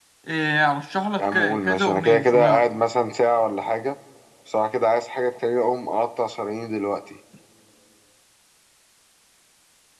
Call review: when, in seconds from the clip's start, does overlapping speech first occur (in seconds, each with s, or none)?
1.2 s